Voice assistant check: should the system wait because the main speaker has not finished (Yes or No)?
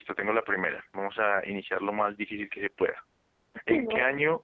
Yes